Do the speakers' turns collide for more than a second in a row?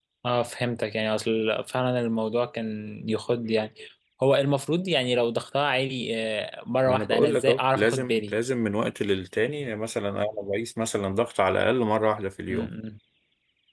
Yes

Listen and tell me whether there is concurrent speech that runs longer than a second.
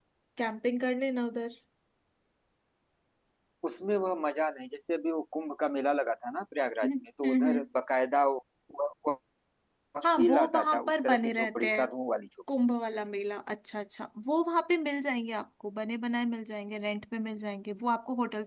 Yes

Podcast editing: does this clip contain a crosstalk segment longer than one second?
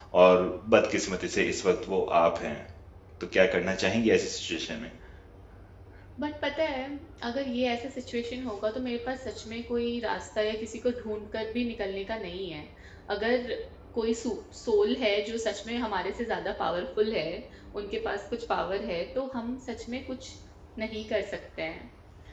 No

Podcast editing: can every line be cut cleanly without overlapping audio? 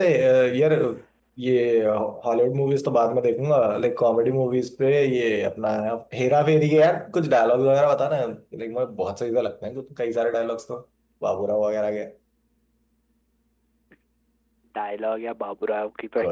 Yes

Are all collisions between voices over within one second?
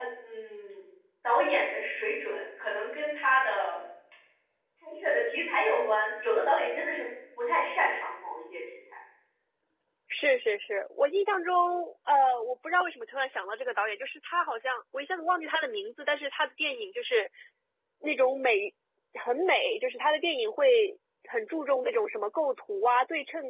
Yes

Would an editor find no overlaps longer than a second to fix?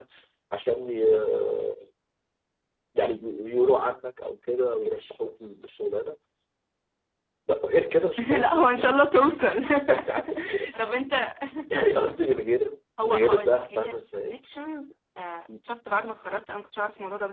No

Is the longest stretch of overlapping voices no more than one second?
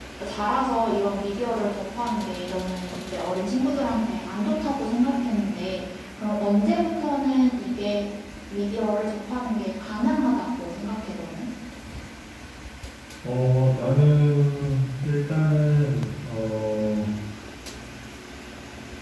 Yes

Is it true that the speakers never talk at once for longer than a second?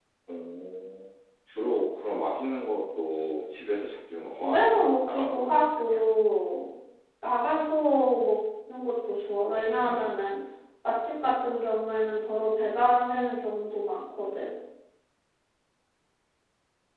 No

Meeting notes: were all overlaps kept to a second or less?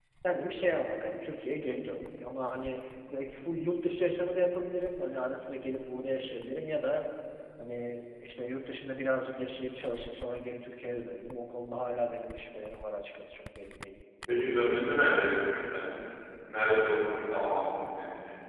Yes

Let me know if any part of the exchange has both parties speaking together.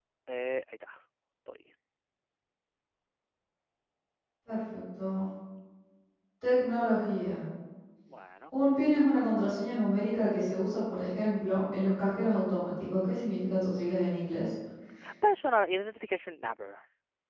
No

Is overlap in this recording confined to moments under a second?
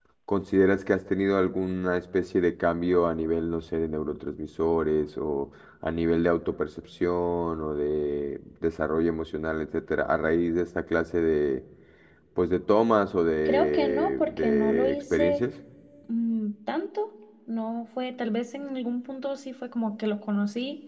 No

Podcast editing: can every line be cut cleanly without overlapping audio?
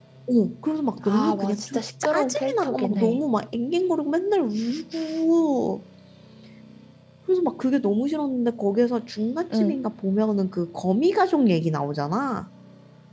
No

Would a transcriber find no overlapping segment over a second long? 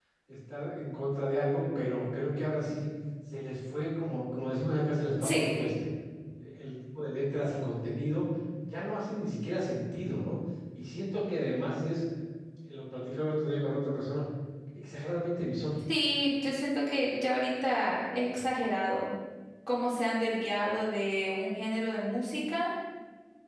Yes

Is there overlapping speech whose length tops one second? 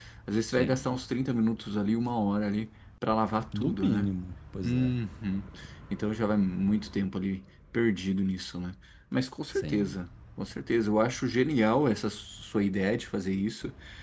No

